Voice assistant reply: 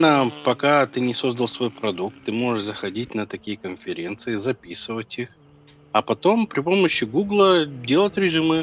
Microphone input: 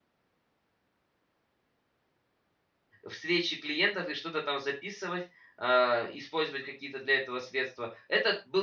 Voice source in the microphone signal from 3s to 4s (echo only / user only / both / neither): user only